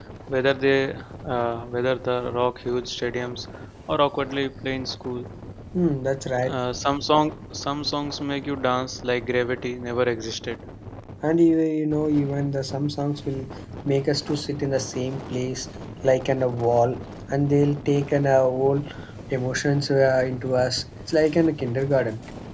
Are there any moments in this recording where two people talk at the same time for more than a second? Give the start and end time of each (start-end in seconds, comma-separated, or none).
none